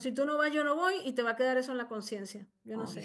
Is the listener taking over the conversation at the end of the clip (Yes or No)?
Yes